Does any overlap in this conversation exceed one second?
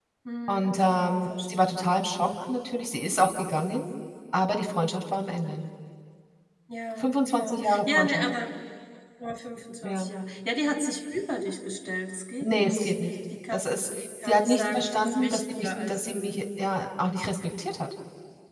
Yes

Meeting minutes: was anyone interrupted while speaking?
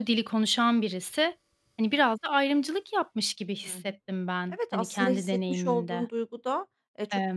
Yes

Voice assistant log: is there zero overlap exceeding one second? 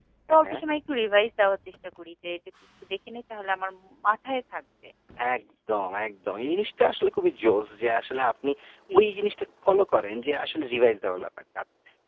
Yes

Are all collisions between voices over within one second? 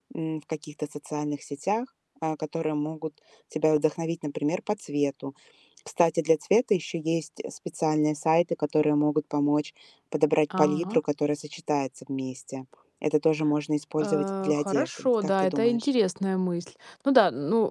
No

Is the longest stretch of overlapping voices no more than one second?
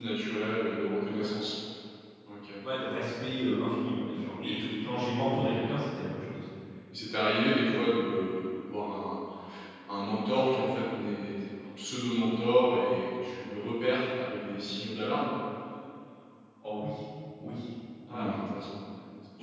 Yes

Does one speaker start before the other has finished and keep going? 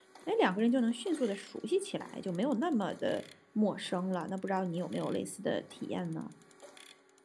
No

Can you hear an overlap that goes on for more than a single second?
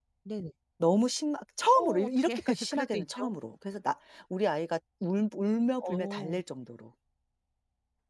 Yes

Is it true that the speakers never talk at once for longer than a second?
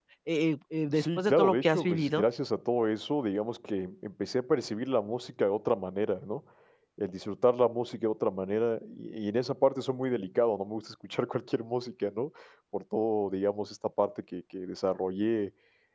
No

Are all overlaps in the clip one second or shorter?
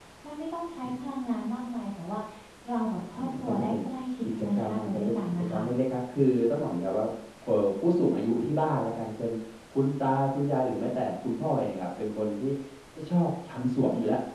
No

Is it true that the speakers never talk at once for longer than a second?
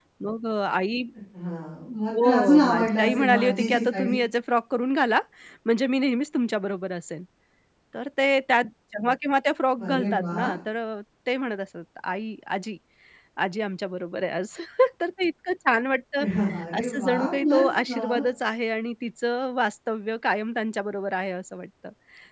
No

